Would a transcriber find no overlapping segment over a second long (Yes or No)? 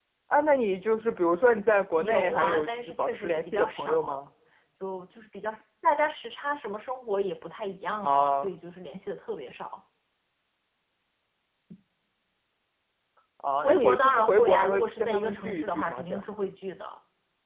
No